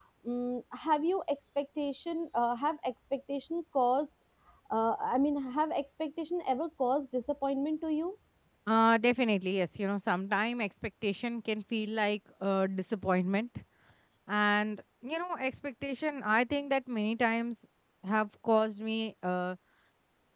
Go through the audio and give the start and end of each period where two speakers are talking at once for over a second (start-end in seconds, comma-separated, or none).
none